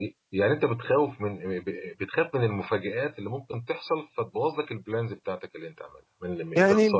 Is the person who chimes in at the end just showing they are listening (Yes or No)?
No